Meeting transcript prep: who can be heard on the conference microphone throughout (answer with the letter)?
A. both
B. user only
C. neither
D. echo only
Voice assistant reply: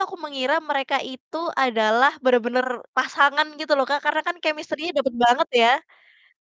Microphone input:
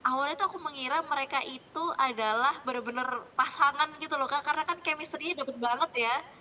D